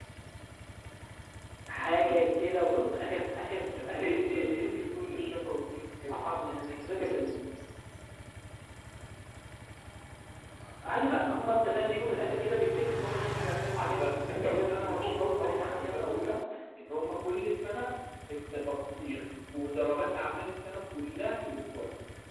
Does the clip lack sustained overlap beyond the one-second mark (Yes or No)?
No